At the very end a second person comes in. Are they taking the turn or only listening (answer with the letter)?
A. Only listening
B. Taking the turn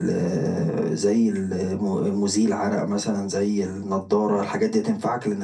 A